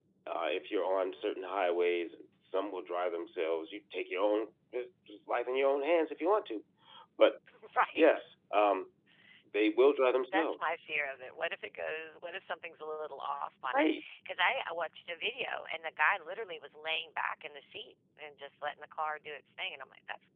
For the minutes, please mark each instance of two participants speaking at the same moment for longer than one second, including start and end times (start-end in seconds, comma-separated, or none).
none